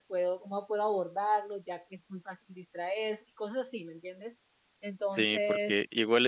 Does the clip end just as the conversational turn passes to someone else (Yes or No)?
Yes